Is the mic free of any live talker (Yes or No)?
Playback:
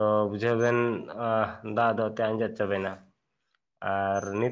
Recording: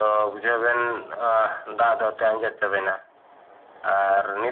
Yes